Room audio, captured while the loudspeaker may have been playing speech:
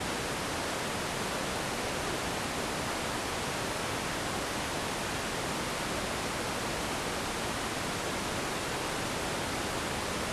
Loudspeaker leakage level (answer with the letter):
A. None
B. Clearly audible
A